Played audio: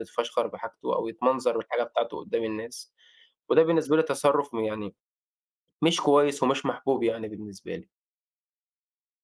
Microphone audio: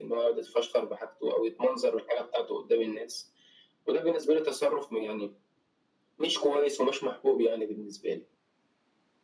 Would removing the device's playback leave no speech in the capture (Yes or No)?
Yes